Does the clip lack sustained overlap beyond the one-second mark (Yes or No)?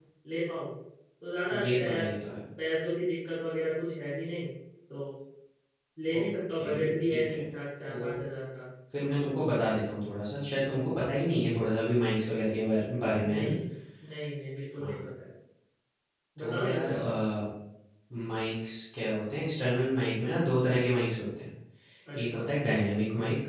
No